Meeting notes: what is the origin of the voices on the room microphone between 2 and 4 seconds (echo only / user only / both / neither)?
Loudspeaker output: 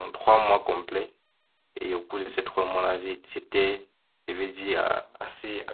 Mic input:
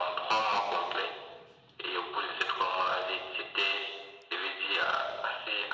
echo only